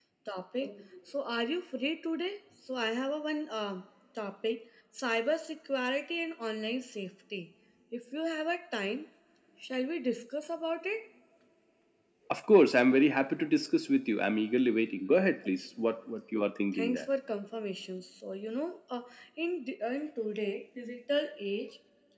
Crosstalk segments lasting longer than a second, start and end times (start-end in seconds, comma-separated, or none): none